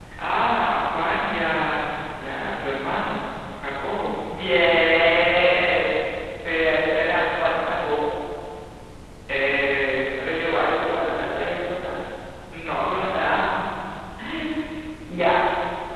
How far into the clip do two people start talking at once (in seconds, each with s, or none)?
none